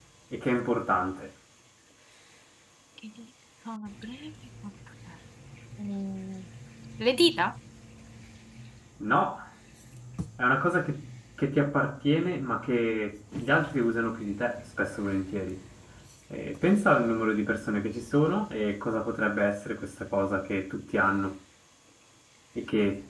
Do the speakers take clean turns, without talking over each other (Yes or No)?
Yes